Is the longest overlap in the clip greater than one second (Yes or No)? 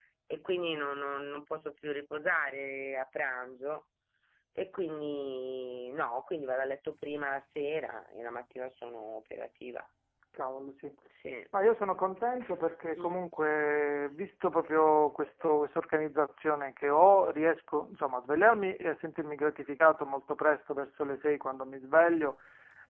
No